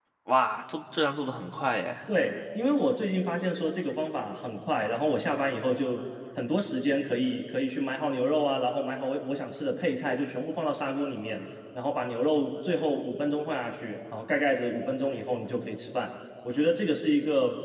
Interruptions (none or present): none